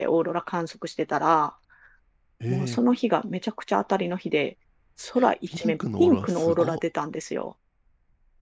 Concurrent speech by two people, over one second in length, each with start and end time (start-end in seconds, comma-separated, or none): 5.5-6.8